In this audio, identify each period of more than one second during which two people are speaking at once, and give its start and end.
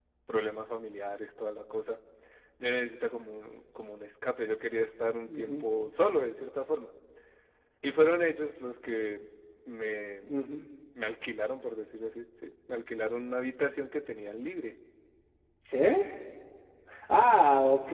none

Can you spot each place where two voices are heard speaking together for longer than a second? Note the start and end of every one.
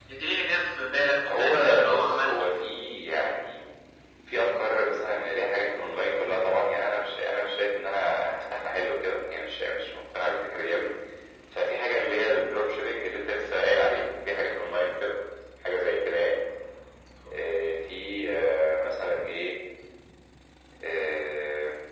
1.2-2.5

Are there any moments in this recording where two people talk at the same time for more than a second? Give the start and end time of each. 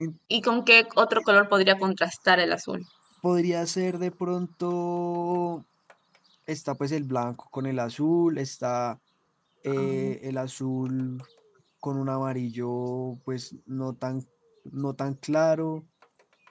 none

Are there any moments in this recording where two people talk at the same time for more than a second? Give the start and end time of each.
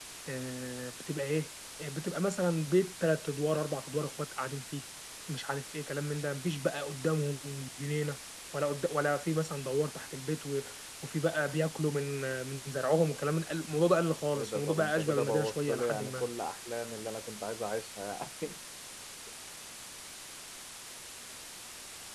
14.3-16.3

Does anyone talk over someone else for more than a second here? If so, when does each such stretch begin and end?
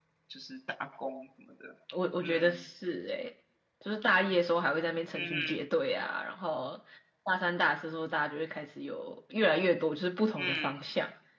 none

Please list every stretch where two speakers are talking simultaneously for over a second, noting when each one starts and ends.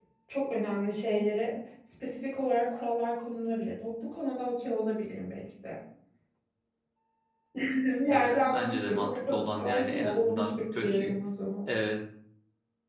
8.1-11.2

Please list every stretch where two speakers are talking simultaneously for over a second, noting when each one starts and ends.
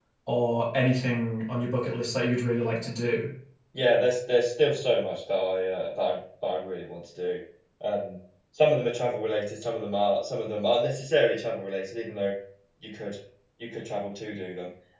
none

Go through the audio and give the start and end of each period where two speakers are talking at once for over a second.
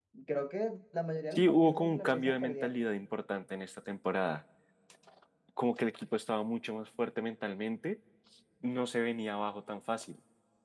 1.3-2.9

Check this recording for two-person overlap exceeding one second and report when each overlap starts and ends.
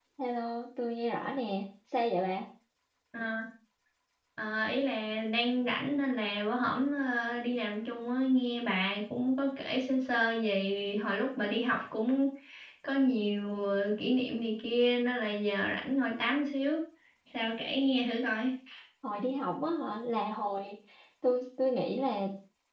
none

